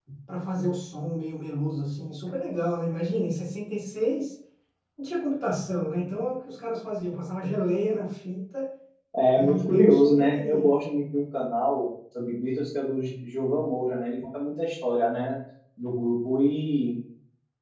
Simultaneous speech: Yes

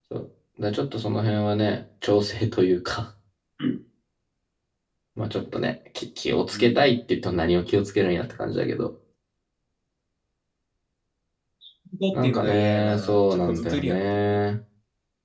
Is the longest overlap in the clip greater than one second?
Yes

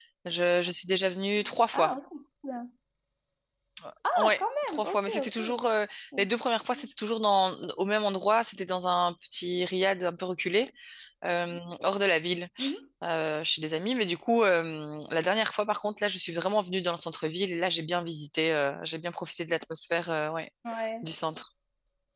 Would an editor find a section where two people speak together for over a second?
Yes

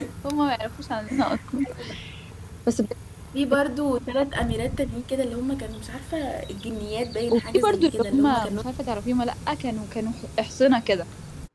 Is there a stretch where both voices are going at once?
Yes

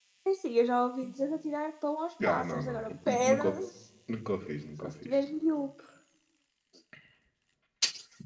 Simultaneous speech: Yes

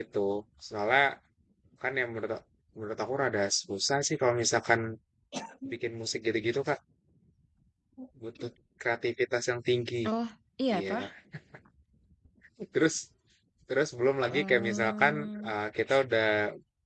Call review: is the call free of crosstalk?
No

